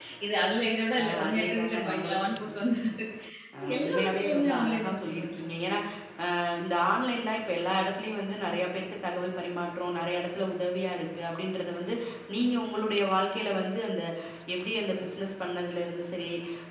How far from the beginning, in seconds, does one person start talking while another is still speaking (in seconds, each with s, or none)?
1.0 s